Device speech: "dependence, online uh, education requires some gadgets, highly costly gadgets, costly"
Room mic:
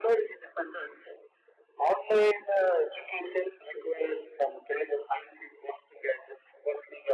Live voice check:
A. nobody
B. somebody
A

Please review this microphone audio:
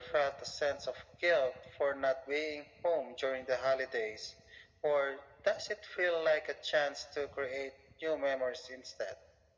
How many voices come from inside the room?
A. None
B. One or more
A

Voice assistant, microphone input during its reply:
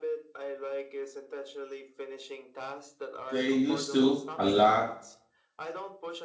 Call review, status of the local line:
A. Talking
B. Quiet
A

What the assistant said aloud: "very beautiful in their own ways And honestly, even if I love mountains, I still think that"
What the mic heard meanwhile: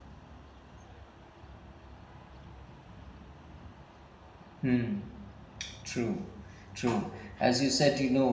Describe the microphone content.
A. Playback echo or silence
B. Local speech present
B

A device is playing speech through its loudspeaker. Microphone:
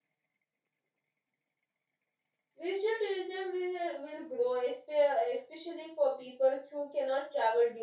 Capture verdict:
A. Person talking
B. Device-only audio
A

